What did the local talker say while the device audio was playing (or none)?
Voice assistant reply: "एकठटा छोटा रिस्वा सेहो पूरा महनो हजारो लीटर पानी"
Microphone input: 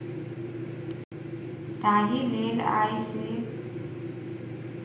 ताहि लेल आइसँ